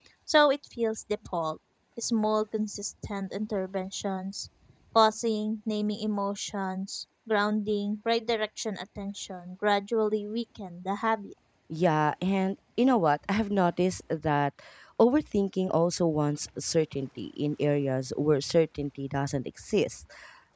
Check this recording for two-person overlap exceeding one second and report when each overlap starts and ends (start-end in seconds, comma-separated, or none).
none